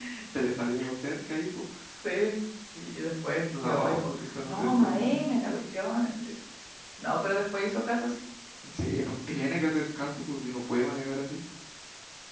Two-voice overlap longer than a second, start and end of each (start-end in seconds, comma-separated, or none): 3.6-5.2